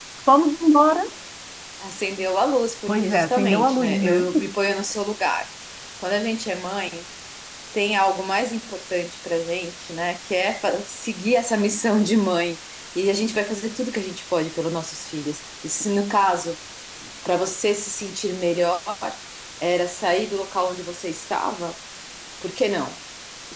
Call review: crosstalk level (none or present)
present